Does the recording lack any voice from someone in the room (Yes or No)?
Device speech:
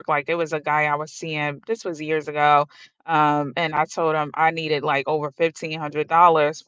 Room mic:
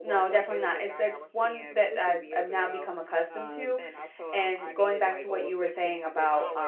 No